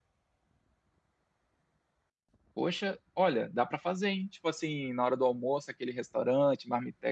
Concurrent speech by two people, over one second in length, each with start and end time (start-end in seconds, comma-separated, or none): none